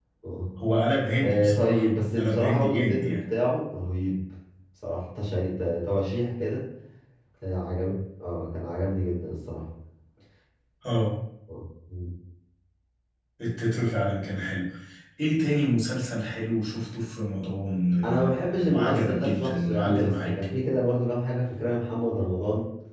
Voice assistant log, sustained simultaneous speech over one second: present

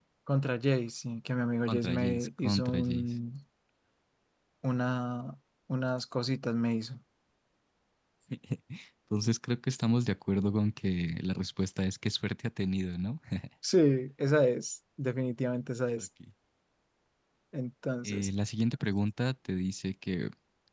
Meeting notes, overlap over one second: present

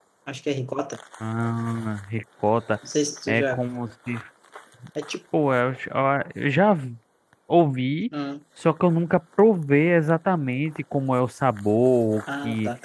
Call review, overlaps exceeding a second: none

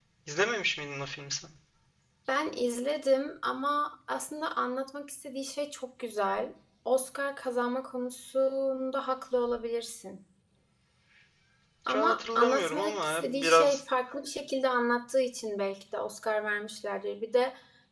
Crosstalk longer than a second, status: present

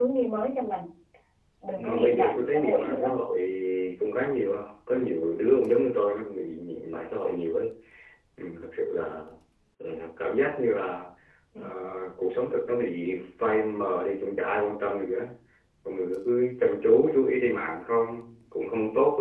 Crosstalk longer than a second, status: present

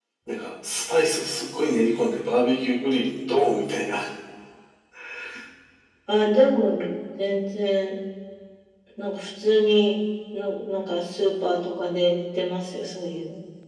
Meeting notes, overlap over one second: none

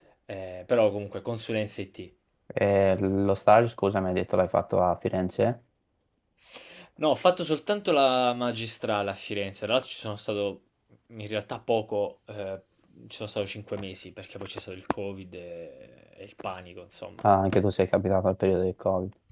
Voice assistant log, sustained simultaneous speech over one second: none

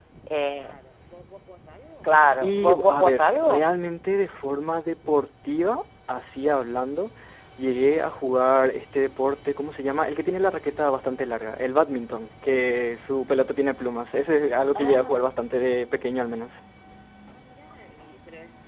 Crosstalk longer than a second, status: present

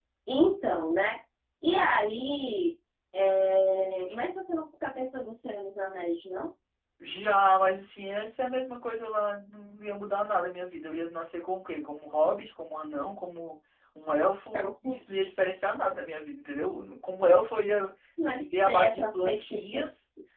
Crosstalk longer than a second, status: present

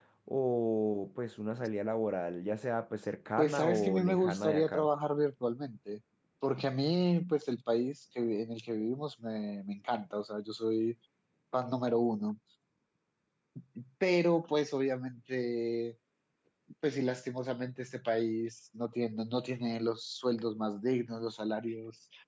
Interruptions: present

